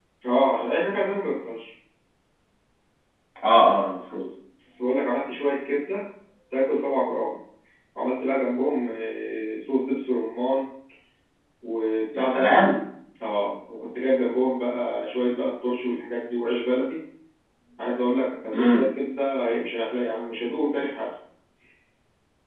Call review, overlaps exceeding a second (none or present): none